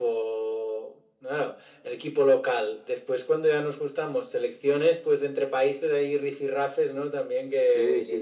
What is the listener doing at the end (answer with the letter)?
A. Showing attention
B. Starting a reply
B